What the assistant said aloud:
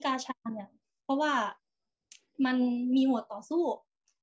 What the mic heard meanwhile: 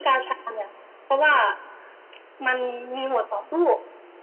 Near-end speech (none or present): none